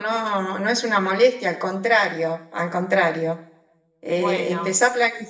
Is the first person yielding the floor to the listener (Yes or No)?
No